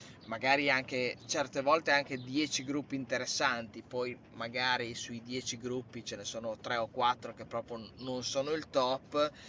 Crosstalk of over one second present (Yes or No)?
No